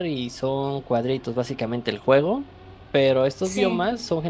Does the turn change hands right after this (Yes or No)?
No